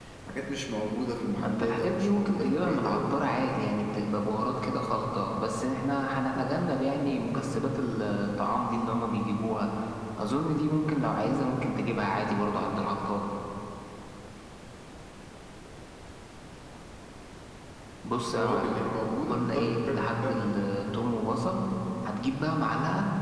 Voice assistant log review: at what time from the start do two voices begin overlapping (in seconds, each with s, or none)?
1.4 s